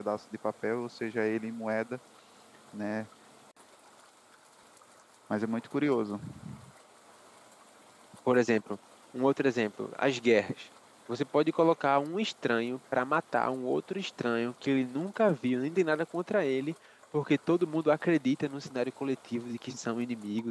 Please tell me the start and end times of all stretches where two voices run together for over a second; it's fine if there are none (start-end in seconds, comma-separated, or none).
none